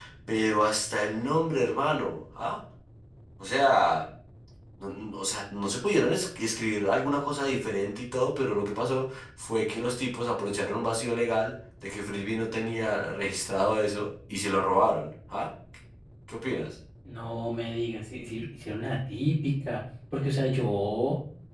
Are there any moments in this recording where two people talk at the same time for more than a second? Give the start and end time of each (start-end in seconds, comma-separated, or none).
none